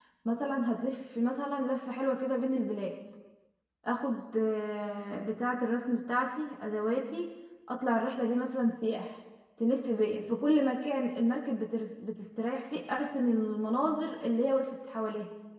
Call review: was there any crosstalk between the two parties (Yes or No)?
No